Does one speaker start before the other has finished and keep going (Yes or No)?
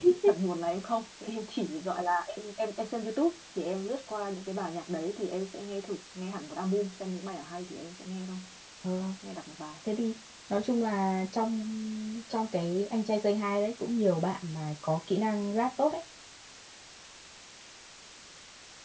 No